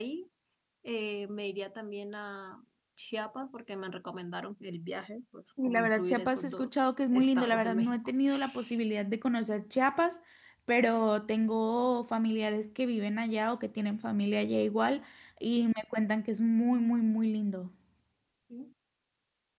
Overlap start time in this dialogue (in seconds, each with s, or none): 5.6 s